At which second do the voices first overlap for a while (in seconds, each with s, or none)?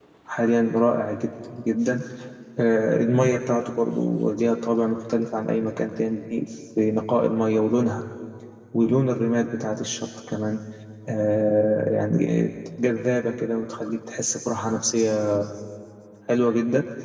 none